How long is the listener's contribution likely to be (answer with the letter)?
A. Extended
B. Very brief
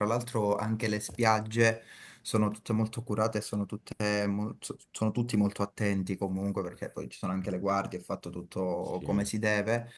B